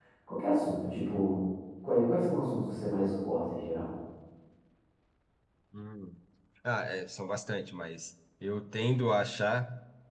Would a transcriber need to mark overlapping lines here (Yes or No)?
No